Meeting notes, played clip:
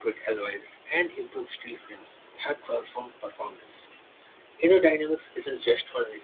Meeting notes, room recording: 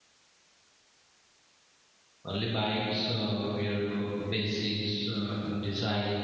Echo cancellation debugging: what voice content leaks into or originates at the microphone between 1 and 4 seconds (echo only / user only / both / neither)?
user only